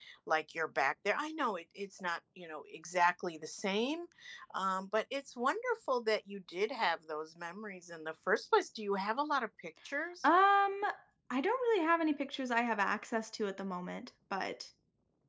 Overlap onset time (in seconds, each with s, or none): none